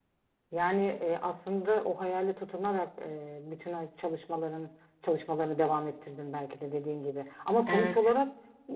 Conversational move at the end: listening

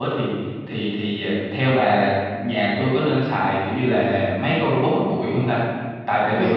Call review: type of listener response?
listening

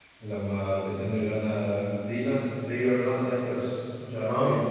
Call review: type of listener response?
taking over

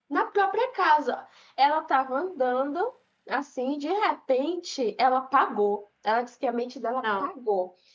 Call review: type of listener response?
listening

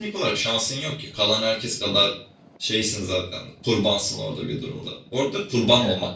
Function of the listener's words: listening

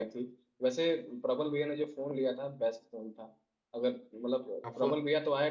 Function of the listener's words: listening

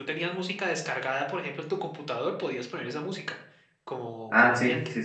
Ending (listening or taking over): taking over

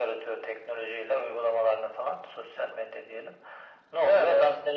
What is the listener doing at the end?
listening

